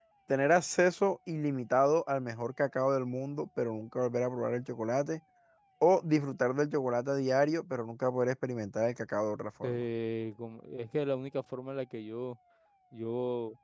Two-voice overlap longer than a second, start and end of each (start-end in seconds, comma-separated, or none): none